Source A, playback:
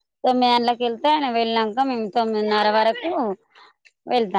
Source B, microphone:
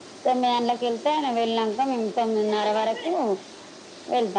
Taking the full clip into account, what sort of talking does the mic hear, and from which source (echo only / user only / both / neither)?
echo only